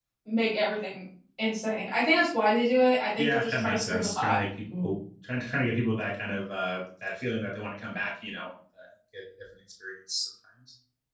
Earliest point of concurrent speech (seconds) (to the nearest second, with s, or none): 3 s